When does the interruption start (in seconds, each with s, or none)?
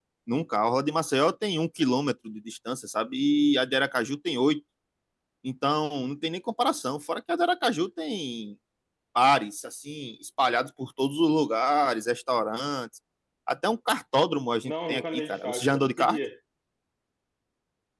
14.6 s